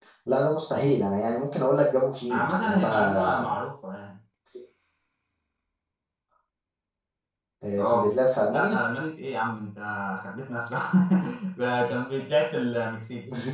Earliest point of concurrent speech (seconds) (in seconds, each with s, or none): 2.3 s